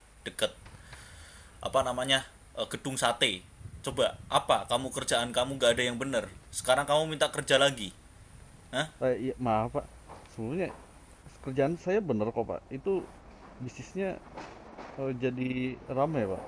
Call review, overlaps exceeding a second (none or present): none